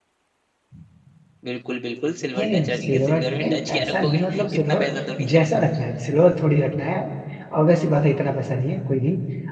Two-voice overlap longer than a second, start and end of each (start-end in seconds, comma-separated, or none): 2.4-4.9